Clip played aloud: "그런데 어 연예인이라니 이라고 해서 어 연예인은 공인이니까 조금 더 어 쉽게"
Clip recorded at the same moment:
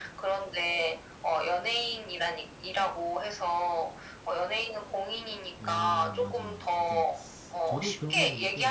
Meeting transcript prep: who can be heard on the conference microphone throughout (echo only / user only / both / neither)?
both